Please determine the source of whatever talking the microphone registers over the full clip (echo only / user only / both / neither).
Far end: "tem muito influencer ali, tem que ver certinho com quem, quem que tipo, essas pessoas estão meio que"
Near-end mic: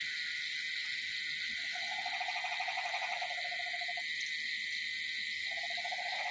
neither